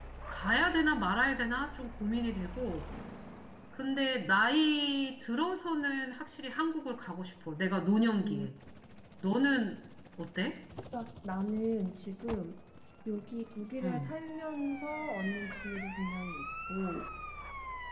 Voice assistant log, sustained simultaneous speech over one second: none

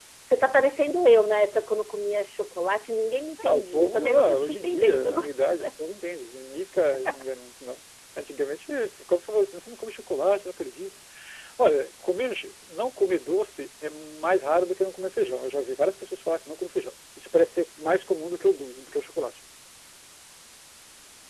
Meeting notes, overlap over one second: present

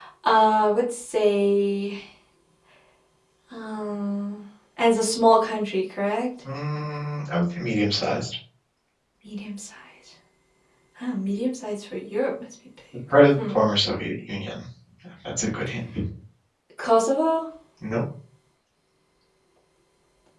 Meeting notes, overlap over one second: none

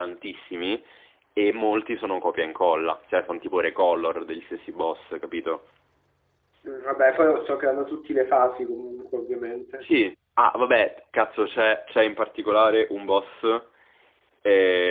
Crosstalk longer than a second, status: none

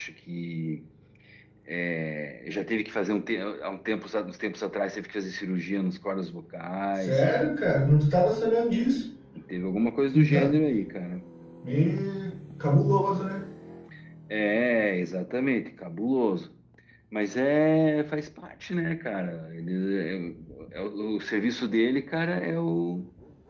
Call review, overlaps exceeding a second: none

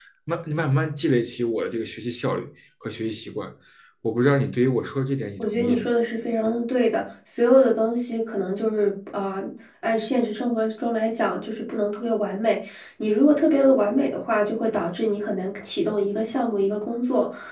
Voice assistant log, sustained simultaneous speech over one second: none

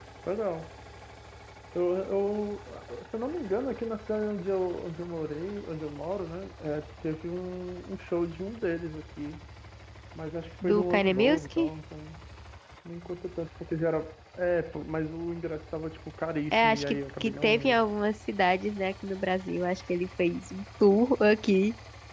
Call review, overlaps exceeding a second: present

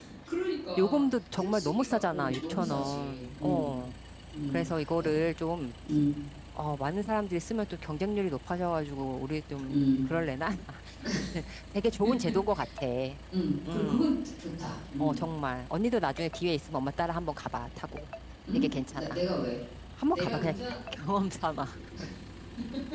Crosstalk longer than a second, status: present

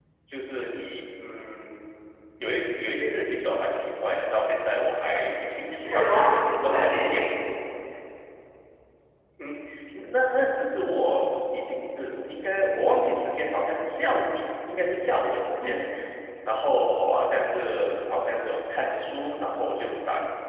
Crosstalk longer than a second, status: present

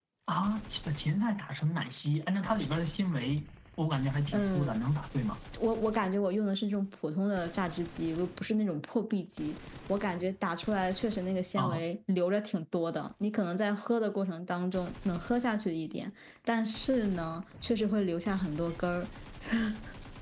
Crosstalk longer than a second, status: none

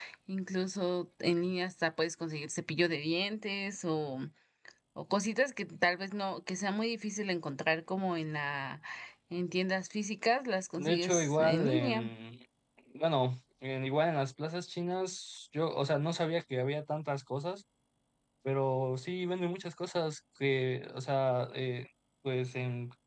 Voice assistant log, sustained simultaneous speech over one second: present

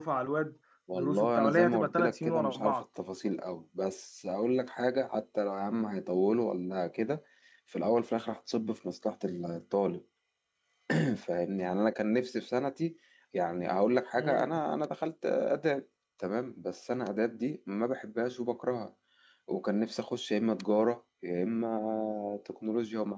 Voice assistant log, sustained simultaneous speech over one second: present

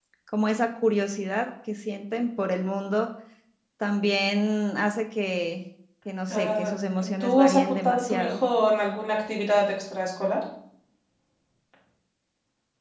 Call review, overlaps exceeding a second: present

